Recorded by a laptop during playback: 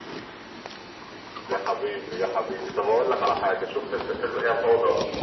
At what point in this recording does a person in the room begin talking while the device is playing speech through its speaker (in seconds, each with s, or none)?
none